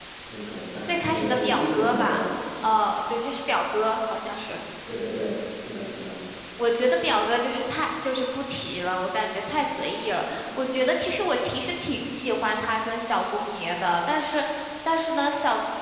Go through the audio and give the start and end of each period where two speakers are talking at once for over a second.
0.9-2.2

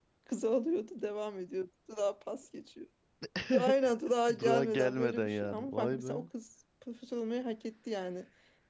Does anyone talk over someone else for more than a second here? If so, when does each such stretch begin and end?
4.4-6.1

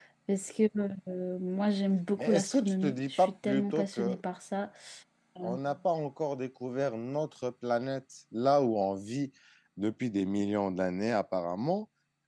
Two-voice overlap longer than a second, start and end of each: 2.2-4.2

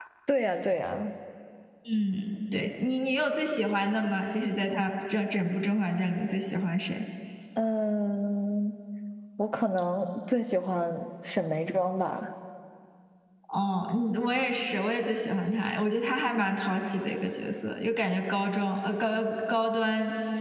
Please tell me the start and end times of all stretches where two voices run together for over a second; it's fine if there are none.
none

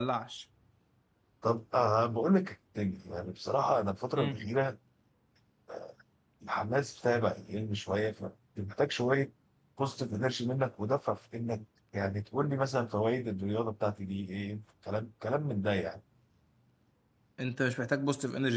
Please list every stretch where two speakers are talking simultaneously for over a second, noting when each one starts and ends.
none

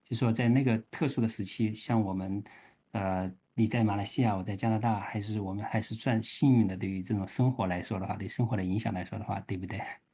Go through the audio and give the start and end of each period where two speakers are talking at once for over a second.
none

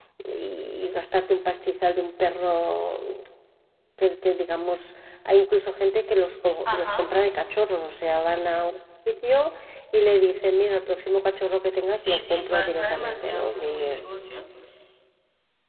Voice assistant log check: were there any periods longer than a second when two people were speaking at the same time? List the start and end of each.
11.9-13.9

